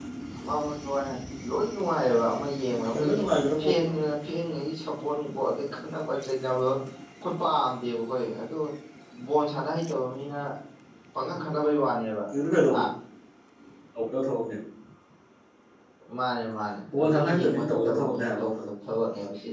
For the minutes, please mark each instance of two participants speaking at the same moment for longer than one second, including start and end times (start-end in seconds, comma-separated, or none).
17.0-18.5